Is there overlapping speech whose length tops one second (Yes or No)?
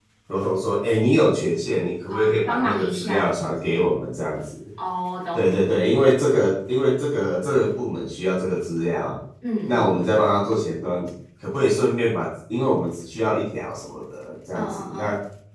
Yes